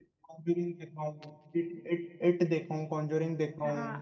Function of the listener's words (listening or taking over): taking over